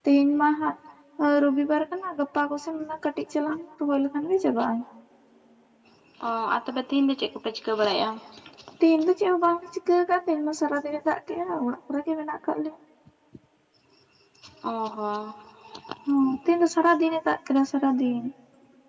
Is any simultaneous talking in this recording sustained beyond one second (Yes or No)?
No